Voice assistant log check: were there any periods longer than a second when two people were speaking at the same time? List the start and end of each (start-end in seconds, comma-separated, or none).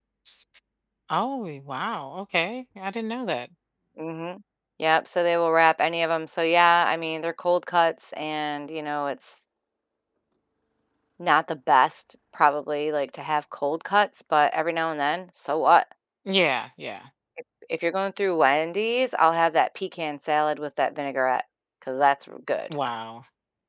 none